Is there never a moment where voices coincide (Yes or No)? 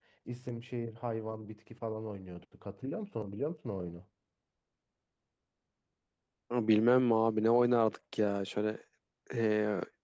Yes